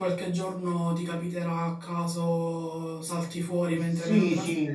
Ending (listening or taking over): taking over